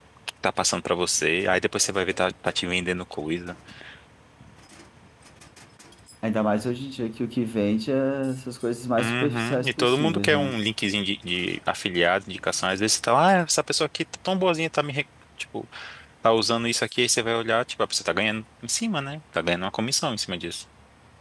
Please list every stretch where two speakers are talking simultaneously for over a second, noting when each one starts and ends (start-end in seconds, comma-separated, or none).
9.0-10.6